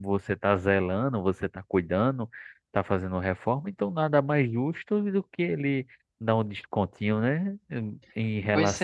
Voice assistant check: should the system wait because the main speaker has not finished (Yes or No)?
Yes